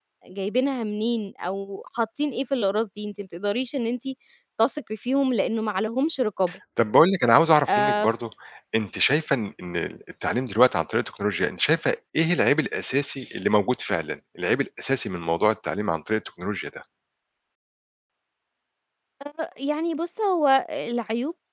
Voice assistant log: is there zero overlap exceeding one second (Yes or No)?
Yes